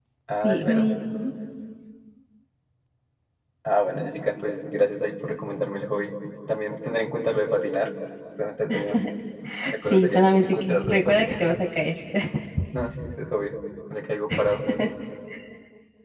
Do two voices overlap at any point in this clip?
Yes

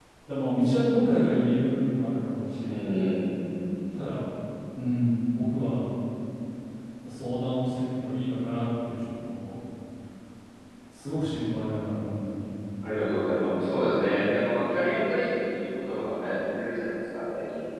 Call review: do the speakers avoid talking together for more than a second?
Yes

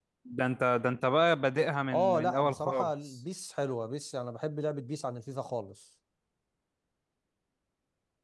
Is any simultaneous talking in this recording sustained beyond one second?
Yes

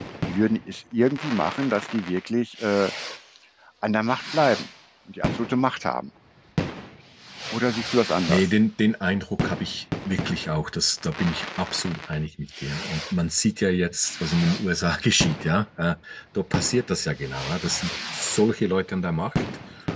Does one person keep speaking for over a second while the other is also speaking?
No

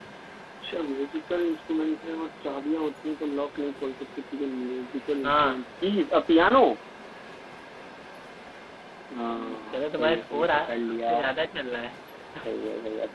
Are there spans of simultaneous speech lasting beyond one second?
Yes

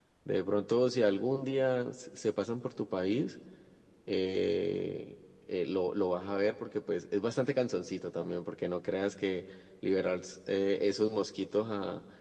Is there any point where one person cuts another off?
No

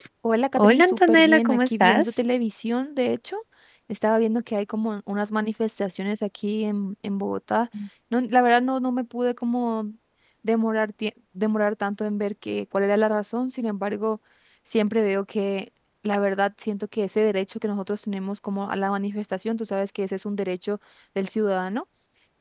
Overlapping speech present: Yes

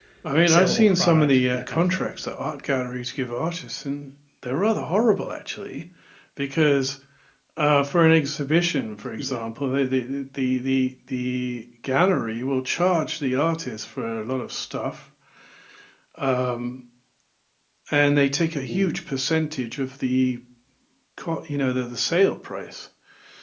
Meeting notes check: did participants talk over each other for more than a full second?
Yes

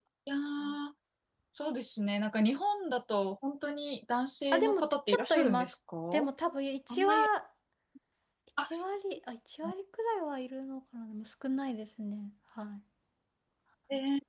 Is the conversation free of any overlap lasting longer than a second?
No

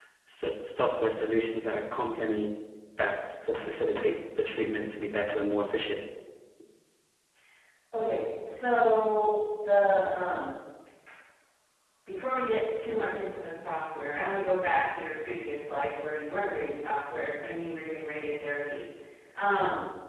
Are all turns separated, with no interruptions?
Yes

